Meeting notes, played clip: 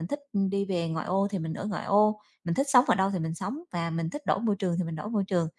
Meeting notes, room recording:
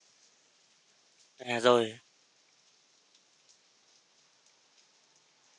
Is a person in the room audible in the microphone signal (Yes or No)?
Yes